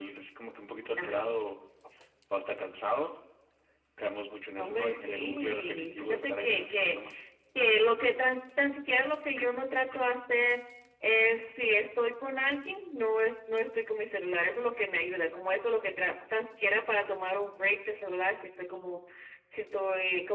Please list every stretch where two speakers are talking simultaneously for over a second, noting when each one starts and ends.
4.6-7.0

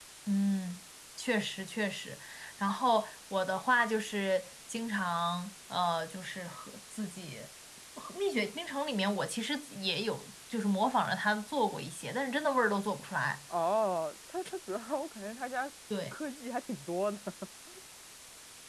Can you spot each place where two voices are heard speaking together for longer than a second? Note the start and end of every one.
none

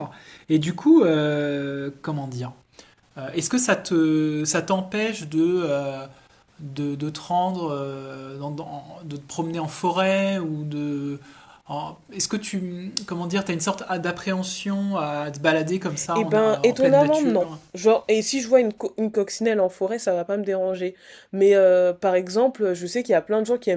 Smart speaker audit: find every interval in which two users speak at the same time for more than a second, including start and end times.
16.1-17.5

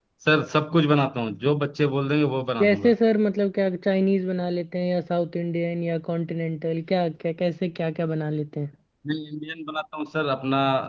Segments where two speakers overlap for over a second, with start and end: none

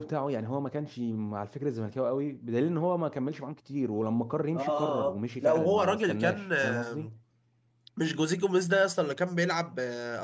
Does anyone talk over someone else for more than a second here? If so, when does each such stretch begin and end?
4.6-7.1

